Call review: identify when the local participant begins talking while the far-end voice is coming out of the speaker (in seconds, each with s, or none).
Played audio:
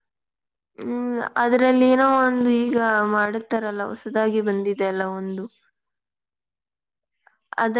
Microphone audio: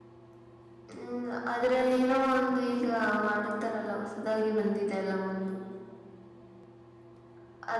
none